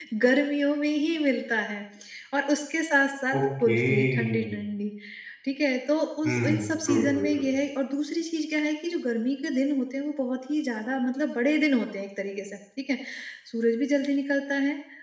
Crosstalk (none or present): present